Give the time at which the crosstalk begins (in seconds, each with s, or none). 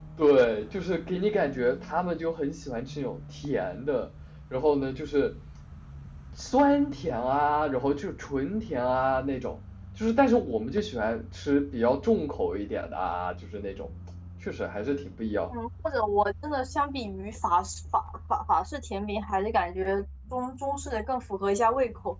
none